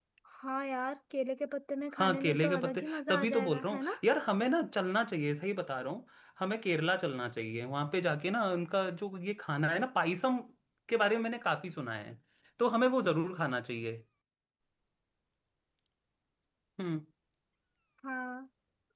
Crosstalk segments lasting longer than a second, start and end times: 2.0-4.0

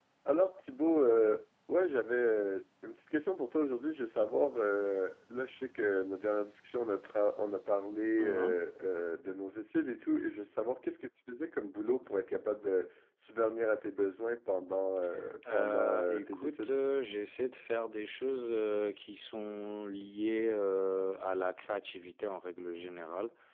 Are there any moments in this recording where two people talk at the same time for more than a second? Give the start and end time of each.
15.5-16.7

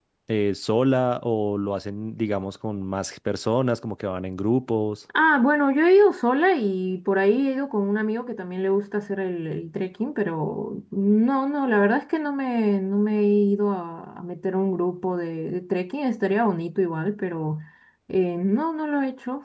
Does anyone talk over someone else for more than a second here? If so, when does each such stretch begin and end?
none

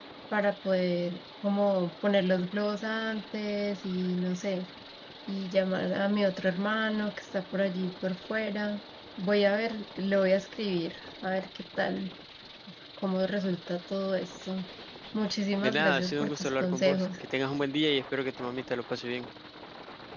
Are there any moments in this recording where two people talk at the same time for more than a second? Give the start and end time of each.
15.6-17.1

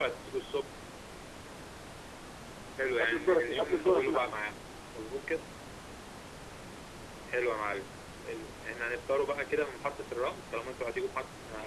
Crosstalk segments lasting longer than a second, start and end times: 3.0-4.4

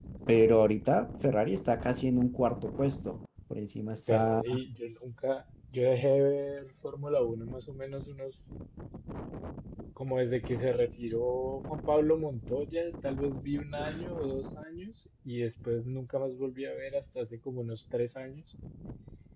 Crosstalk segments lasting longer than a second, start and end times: none

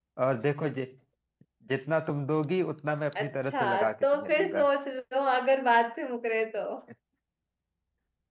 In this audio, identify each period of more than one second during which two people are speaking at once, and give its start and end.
3.2-4.7

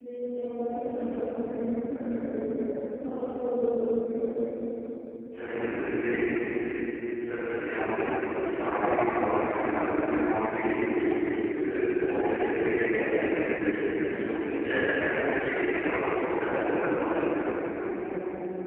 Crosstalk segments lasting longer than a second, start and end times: 15.9-17.2

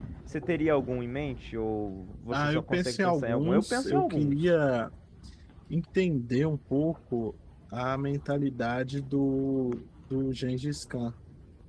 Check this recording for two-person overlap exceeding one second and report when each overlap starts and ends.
2.3-4.3

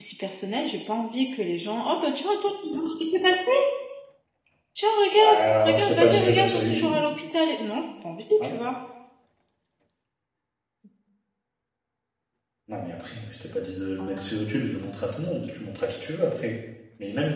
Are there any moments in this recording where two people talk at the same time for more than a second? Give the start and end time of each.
5.2-6.9

